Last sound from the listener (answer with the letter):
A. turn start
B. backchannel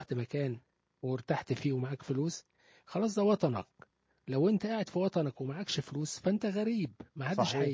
A